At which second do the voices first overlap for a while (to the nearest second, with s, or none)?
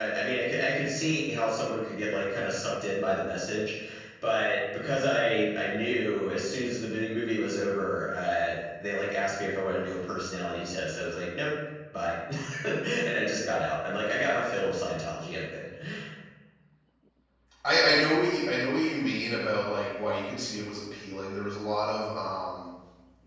none